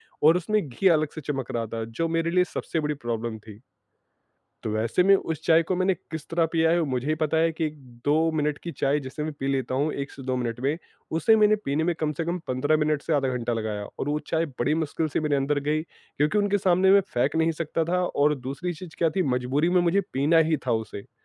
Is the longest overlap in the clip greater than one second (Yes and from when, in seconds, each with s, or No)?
No